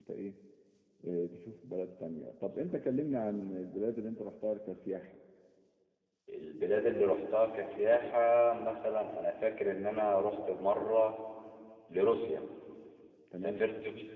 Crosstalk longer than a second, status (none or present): none